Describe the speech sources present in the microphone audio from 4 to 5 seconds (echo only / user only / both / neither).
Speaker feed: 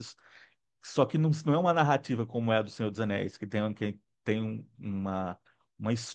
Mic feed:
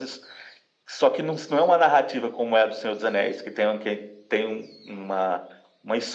echo only